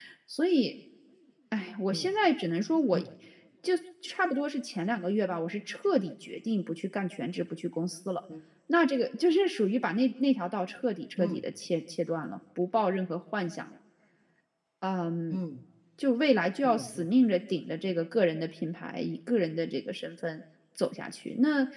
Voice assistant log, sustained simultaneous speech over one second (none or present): none